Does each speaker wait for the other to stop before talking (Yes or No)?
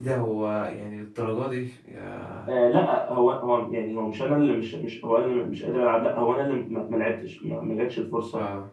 Yes